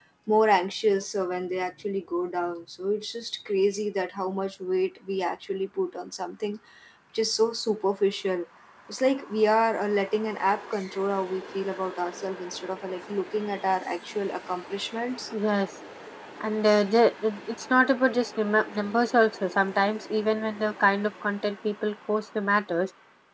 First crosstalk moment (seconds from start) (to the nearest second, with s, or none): none